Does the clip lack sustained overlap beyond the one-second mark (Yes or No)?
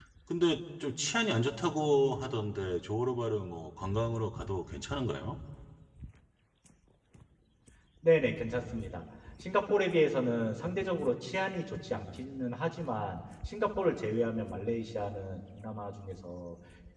Yes